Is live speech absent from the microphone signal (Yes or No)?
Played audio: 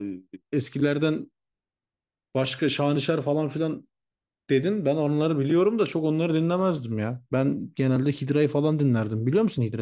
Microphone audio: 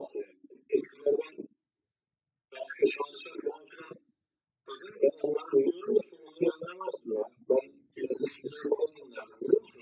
Yes